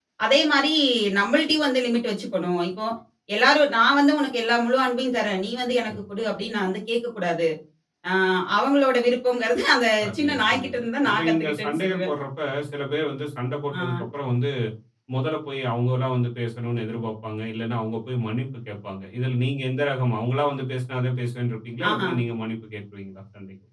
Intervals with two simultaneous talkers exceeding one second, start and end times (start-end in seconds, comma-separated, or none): 10.0-12.1